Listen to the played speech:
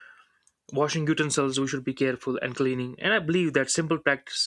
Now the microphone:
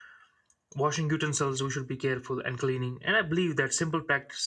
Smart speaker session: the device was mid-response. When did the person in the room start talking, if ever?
none

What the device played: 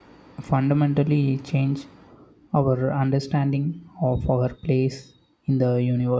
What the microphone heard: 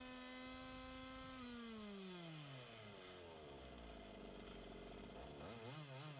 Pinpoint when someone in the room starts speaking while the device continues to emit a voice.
none

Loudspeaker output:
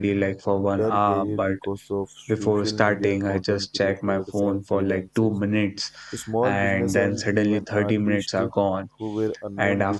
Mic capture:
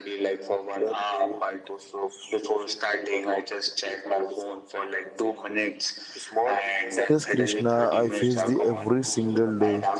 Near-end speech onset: 7.1 s

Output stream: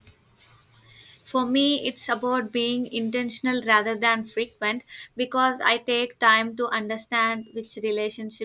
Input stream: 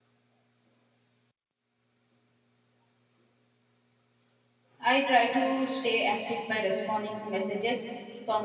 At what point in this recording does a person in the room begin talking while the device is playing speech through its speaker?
4.8 s

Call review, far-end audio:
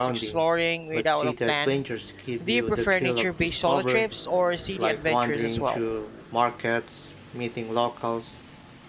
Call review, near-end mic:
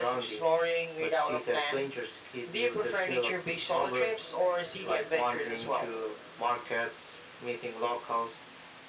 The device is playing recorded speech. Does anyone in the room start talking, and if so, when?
none

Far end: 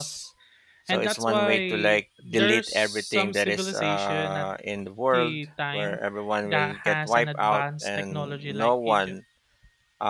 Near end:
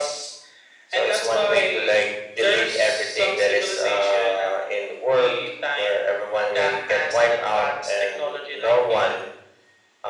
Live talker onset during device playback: none

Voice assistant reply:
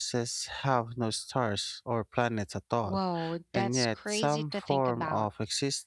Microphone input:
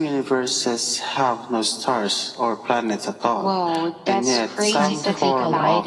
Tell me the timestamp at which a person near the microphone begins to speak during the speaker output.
4.7 s

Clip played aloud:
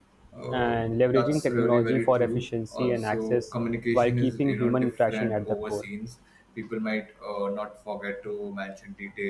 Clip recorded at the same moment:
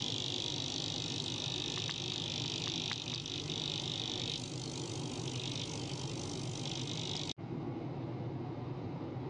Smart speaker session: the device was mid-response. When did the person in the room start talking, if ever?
none

